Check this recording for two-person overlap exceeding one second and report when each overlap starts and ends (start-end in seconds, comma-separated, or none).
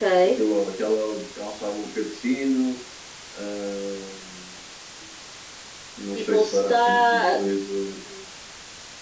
6.1-7.4